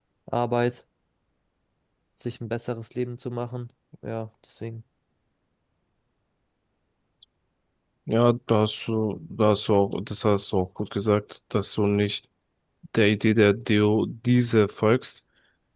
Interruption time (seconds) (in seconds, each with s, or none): none